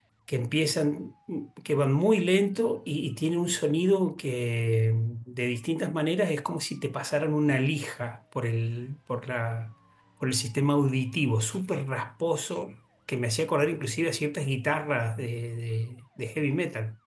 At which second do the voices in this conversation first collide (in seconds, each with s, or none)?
none